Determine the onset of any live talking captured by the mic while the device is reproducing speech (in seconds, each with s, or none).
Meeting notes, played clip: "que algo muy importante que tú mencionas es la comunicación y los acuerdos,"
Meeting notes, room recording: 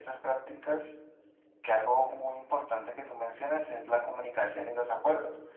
none